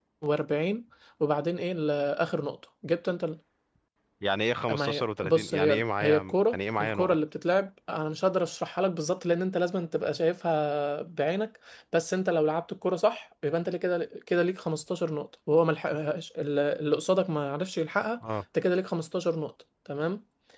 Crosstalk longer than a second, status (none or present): present